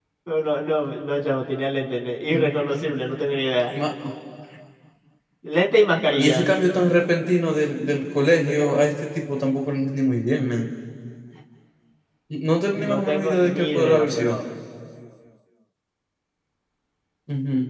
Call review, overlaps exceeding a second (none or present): present